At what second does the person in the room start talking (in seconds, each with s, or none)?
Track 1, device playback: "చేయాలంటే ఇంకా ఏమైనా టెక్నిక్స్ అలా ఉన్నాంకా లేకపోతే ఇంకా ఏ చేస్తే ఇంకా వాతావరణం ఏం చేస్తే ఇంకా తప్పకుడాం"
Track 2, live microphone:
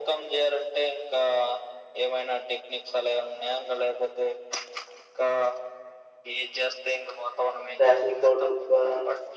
7.8 s